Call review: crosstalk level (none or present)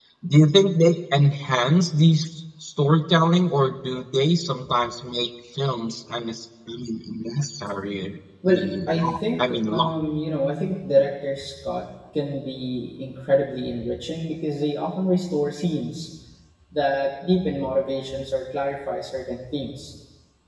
present